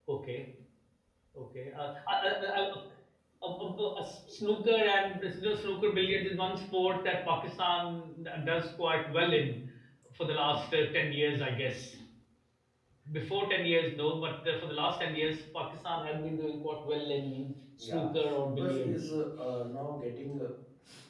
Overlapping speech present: Yes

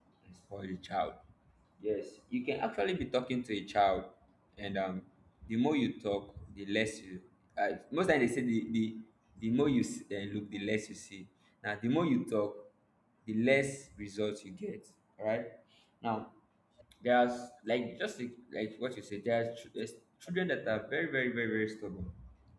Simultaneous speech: No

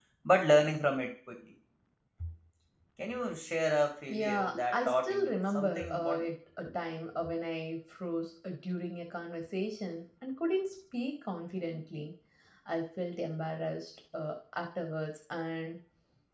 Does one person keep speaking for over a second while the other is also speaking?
Yes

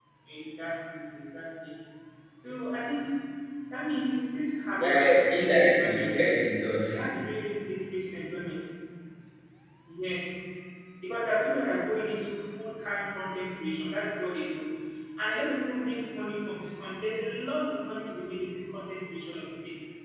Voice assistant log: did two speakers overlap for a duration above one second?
Yes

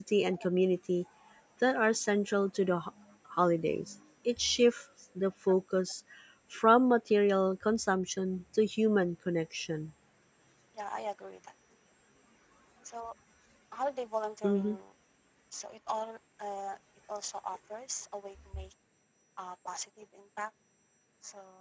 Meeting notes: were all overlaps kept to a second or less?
Yes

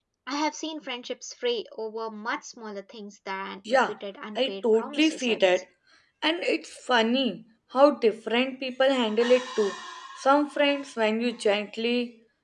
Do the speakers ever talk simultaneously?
Yes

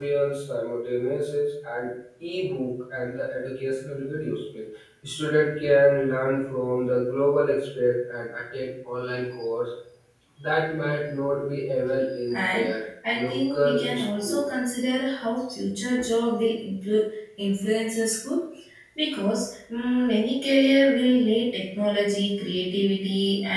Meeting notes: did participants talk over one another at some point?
Yes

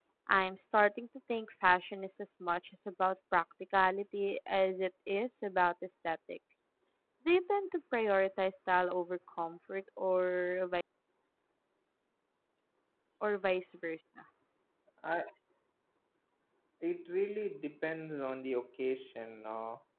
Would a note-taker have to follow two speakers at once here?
No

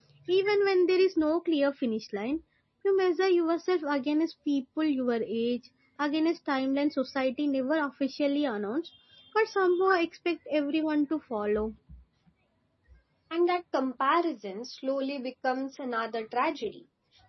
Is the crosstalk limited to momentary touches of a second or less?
Yes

